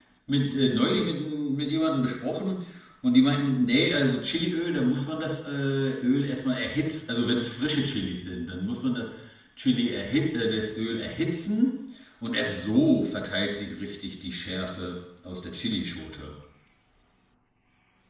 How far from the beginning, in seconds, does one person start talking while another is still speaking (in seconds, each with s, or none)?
none